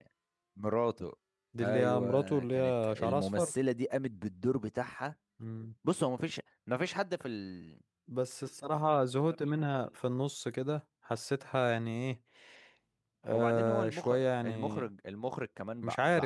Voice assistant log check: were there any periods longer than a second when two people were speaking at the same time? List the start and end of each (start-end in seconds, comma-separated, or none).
1.6-3.5, 13.3-14.8